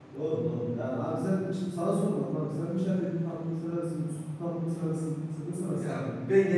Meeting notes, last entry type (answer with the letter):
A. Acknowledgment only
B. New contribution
B